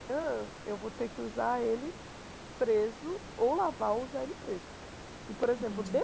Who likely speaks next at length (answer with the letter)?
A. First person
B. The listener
A